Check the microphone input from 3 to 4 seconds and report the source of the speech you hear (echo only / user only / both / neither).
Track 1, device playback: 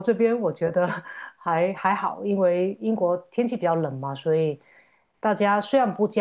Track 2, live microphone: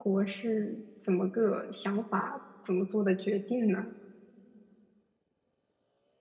user only